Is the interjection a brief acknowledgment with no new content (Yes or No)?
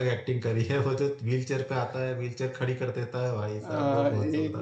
No